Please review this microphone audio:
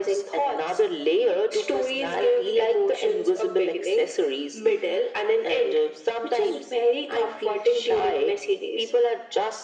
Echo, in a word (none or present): present